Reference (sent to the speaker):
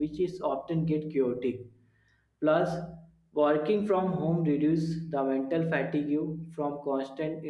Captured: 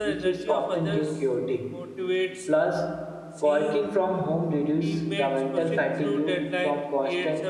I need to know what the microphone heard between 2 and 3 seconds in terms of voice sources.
both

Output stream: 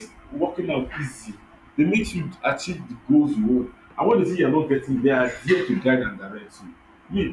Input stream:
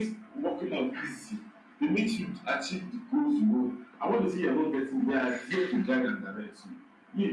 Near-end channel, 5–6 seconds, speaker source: echo only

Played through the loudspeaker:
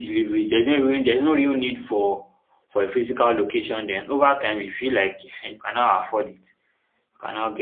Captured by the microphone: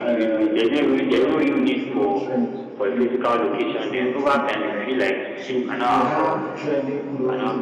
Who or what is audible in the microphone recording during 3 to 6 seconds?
both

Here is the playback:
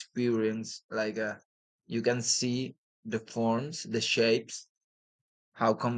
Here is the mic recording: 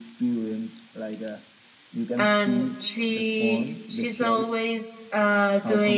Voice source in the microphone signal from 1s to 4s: both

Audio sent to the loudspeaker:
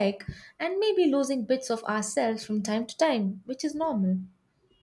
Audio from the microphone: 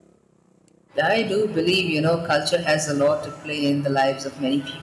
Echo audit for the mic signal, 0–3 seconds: user only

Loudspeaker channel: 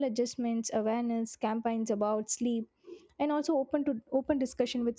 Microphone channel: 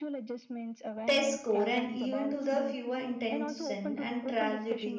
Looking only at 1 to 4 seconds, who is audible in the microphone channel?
both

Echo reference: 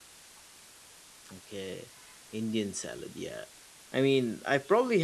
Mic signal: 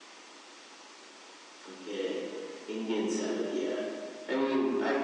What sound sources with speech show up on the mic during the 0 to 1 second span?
neither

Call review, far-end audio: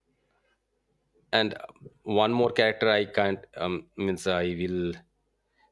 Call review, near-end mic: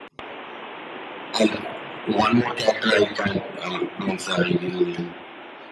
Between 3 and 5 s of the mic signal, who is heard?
echo only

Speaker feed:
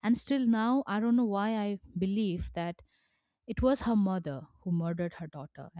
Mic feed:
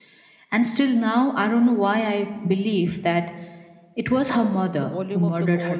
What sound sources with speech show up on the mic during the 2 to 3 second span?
echo only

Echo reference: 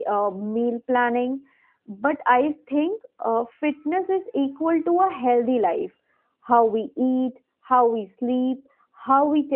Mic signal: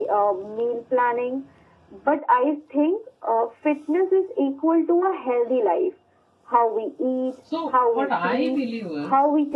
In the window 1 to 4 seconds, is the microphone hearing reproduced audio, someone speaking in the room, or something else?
echo only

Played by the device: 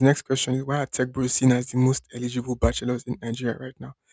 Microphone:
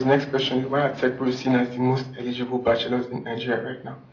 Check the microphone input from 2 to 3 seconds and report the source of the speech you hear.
echo only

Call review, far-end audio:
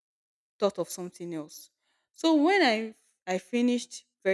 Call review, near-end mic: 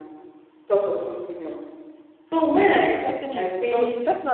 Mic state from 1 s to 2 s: echo only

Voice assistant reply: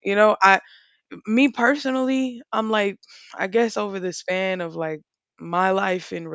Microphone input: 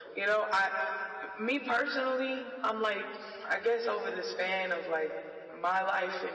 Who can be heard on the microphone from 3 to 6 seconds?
echo only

